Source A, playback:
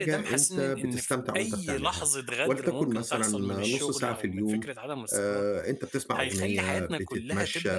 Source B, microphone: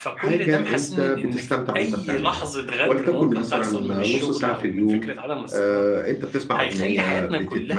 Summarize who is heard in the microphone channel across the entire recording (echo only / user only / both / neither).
echo only